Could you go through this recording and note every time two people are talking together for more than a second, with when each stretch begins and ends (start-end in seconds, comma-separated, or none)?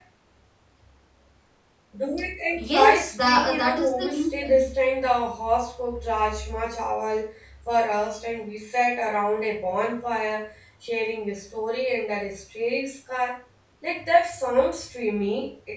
2.6-4.7